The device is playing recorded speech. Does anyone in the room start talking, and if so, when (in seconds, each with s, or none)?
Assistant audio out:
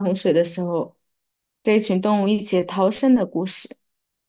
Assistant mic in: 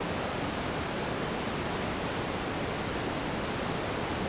none